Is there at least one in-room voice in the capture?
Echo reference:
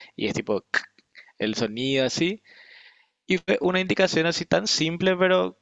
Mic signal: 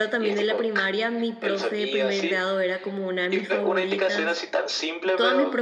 Yes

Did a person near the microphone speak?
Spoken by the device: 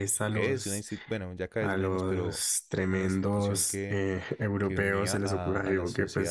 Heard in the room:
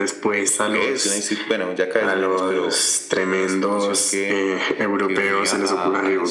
No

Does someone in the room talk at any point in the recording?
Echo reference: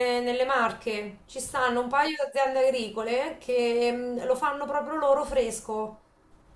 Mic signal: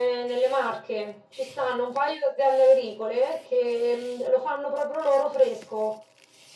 No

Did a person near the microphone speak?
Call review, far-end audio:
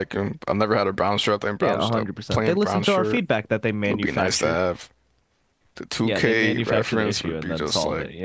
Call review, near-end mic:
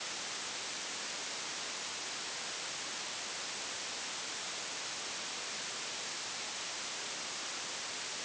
No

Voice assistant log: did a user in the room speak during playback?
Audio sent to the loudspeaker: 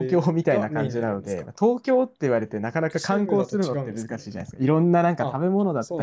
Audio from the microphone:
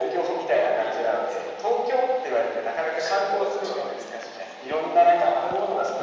No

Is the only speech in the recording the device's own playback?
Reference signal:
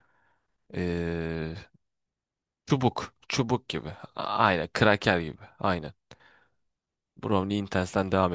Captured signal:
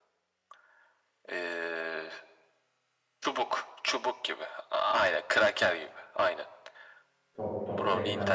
No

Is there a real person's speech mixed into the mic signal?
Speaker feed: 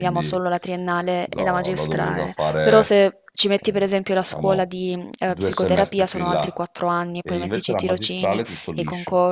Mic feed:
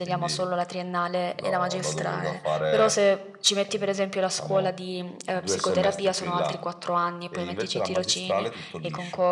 No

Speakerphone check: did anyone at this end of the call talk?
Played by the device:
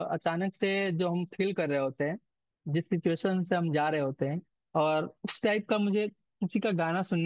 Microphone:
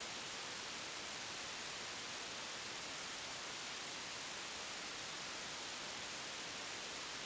No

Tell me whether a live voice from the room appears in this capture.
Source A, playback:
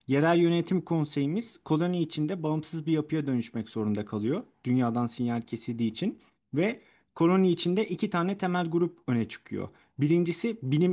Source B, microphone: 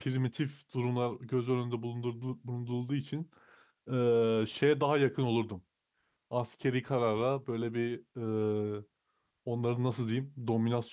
Yes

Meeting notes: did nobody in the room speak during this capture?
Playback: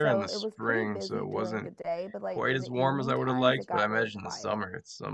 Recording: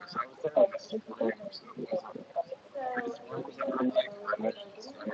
No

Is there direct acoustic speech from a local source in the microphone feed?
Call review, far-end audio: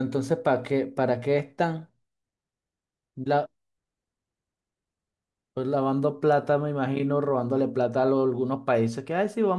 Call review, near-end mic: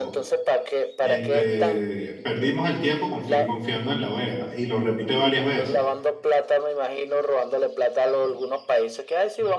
Yes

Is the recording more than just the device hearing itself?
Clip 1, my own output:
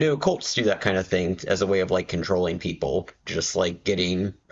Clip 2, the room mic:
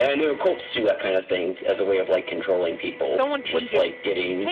Yes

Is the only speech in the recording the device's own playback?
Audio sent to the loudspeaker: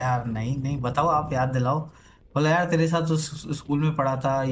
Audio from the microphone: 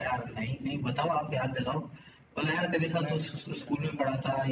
No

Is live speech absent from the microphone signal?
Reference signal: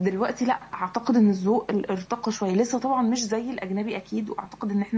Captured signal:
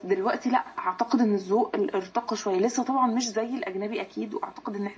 Yes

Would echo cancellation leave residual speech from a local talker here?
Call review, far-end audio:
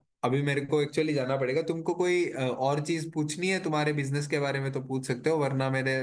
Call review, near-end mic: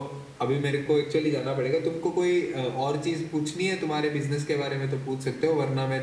No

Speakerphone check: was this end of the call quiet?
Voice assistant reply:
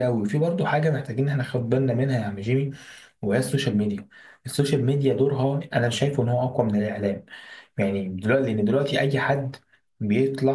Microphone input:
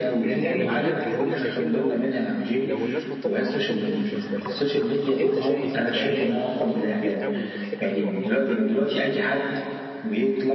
No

